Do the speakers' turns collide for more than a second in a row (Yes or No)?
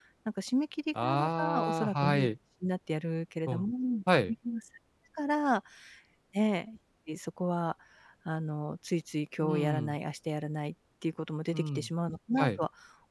Yes